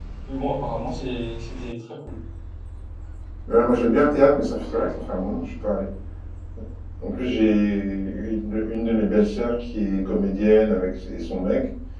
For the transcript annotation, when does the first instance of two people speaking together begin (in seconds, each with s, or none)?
none